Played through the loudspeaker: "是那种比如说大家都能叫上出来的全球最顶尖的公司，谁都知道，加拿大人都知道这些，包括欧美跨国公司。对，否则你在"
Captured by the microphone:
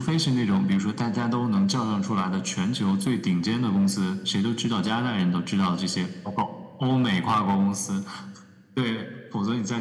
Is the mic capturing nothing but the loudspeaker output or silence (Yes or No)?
Yes